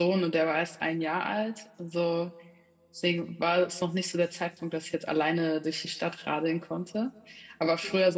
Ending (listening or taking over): listening